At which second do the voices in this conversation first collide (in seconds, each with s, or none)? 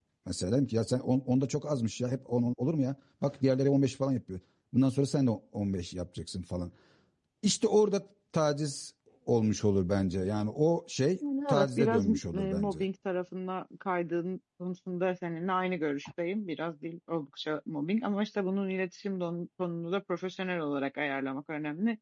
11.5 s